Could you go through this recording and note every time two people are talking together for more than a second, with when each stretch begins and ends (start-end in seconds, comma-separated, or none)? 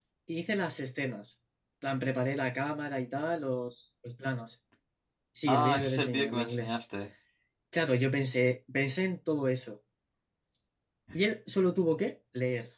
5.5-6.7